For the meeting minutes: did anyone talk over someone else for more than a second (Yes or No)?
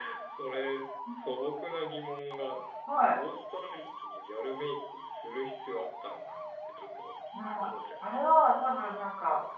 No